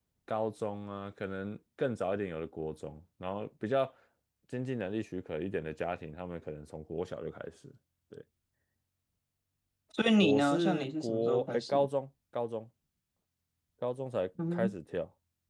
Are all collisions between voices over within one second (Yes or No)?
No